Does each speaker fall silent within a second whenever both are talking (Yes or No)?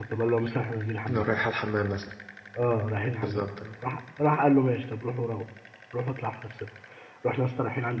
Yes